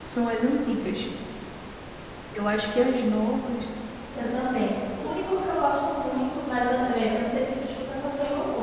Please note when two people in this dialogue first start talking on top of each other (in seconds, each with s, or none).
none